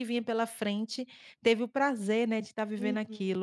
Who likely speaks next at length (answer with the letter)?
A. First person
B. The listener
B